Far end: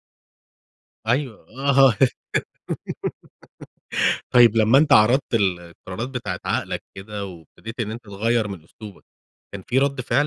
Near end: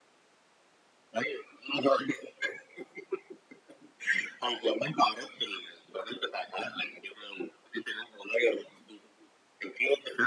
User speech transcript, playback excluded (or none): none